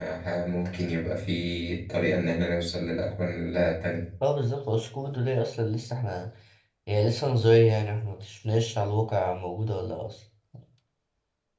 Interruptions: none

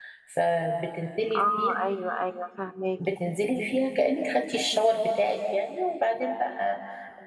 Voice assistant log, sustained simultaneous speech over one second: none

